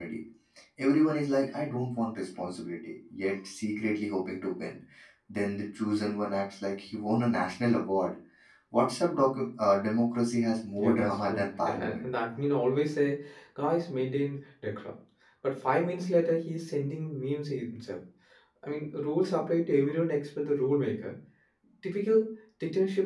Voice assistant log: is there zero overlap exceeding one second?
No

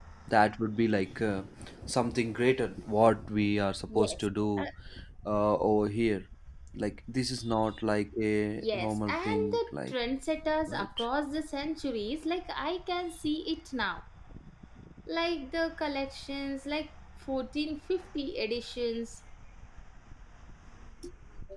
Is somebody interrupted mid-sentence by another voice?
Yes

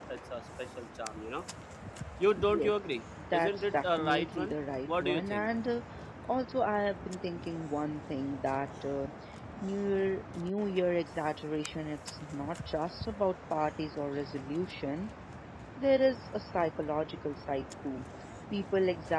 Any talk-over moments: Yes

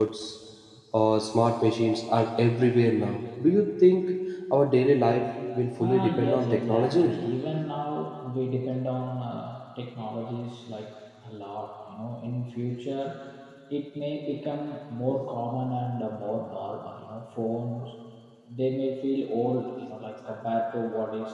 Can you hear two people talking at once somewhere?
Yes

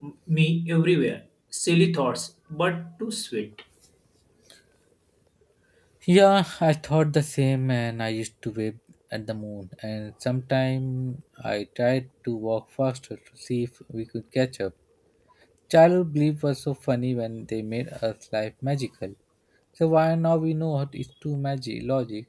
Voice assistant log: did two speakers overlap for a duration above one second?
No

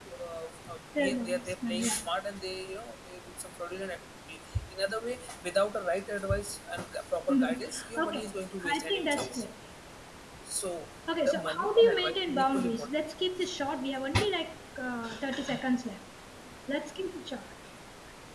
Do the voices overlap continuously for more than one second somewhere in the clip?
Yes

